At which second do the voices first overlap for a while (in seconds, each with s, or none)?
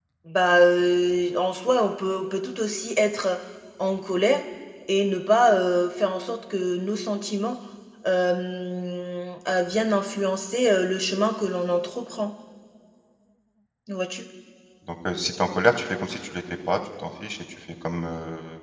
none